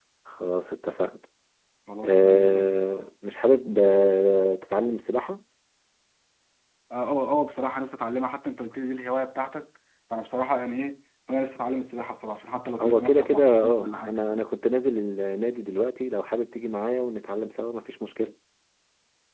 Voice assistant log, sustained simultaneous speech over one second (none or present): present